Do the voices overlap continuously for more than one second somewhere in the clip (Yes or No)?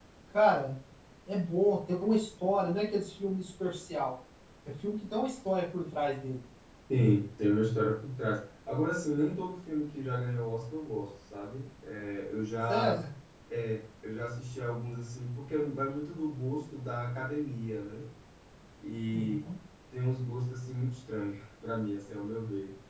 No